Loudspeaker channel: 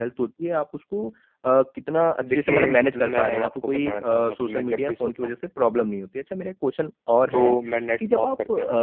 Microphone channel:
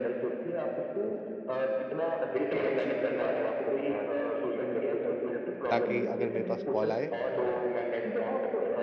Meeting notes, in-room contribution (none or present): present